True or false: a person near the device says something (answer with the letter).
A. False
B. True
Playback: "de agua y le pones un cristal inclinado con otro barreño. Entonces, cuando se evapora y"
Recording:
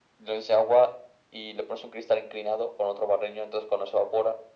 A